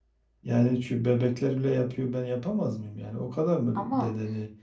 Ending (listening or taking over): listening